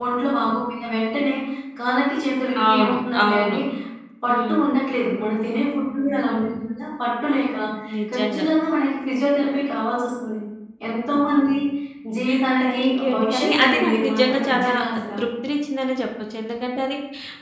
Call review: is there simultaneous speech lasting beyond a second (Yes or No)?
Yes